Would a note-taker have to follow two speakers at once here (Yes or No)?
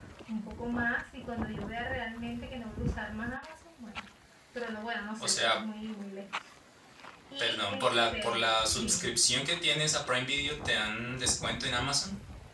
Yes